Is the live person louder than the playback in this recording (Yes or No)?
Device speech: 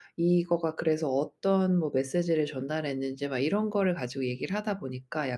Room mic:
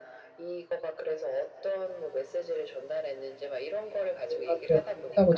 Yes